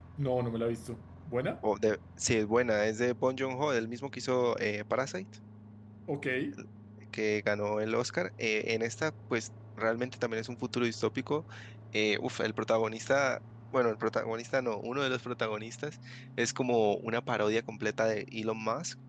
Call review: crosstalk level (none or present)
none